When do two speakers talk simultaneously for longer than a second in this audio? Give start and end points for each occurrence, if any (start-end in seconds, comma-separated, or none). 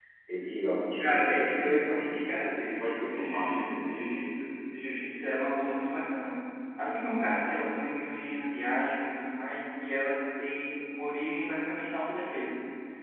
1.0-4.0